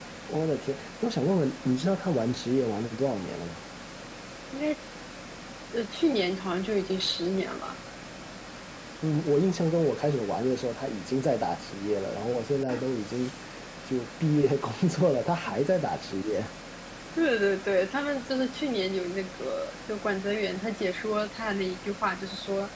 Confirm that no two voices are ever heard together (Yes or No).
Yes